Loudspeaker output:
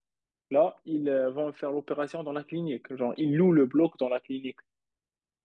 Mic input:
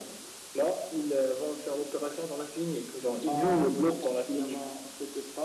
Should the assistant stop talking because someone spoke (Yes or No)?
Yes